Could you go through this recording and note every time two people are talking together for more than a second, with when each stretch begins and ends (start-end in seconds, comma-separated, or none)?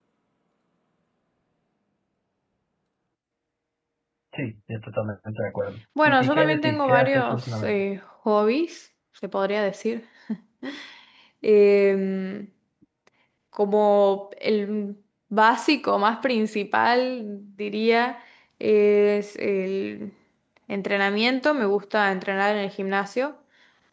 6.0-7.8